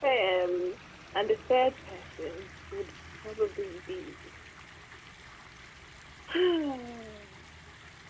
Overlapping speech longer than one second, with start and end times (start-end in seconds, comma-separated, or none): none